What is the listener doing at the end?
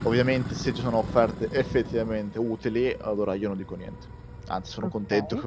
listening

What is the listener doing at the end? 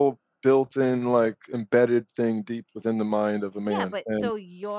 taking over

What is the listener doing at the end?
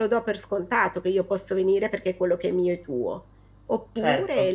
listening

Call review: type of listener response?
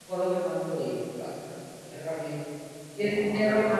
listening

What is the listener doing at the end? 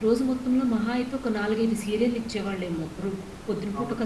taking over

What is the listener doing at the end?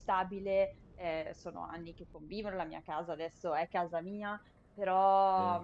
taking over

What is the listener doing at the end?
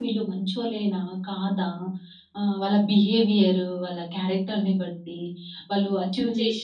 listening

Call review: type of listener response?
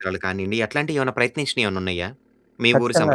taking over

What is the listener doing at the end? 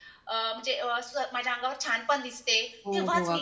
taking over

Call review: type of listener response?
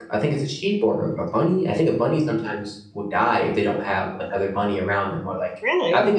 listening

